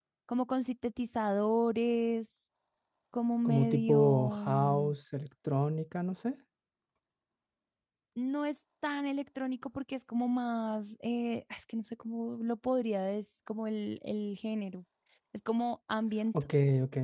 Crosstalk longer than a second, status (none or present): present